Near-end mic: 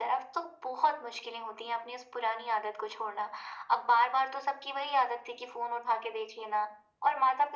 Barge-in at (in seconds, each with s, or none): none